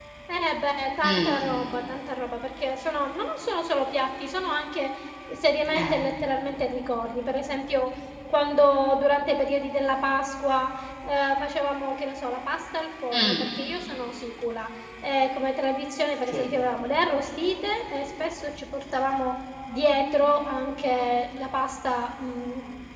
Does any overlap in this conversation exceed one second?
No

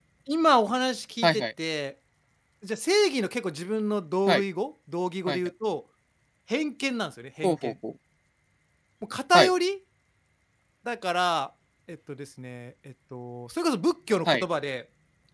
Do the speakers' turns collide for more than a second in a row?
No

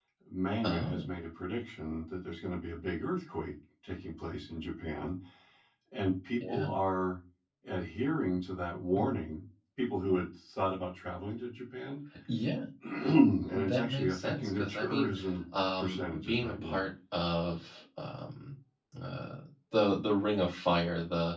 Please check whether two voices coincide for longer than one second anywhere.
Yes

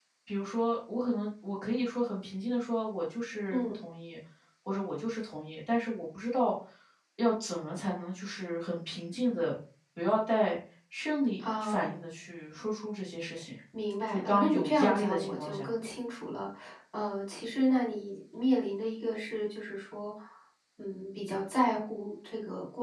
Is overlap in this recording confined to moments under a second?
No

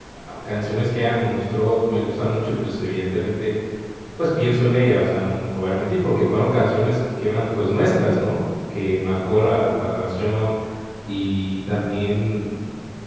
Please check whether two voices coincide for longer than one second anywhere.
No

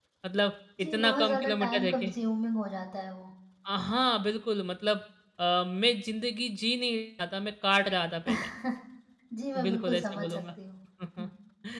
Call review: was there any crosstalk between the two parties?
Yes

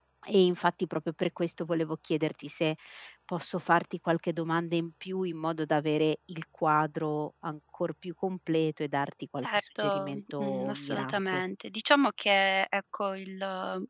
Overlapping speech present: Yes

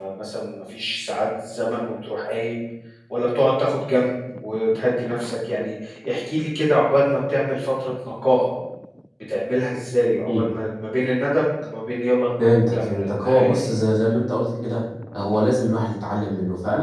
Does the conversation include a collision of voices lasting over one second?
Yes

